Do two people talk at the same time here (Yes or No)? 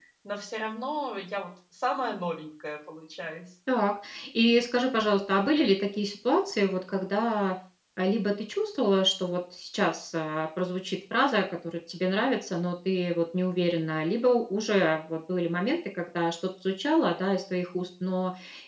No